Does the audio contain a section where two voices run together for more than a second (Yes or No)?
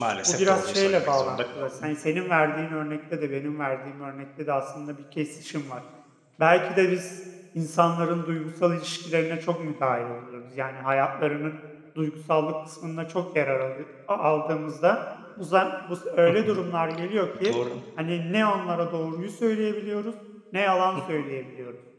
Yes